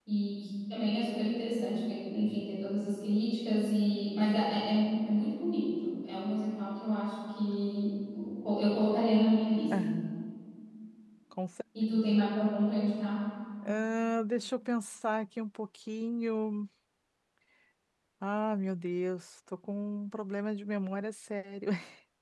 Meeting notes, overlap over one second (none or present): none